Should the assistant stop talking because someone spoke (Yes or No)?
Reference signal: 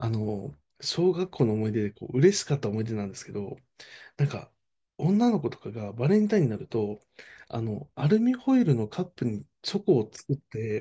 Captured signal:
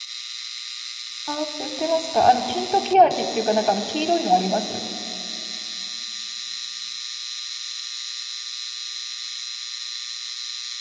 Yes